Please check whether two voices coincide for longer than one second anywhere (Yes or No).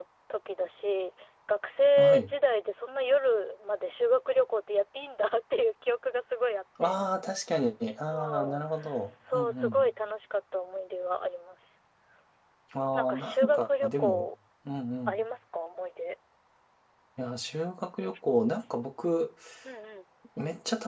Yes